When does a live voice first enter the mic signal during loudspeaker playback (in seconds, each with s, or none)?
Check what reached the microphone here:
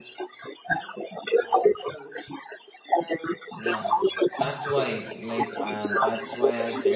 3.5 s